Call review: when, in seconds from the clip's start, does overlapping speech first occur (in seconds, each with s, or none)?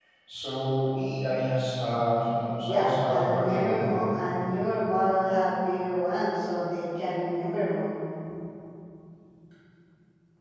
2.6 s